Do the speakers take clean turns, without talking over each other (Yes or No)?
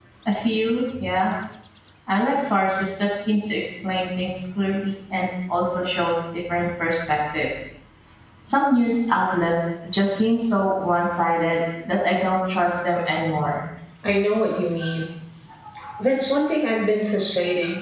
Yes